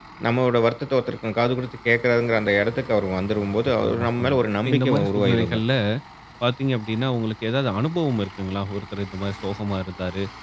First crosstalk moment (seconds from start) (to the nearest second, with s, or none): 4 s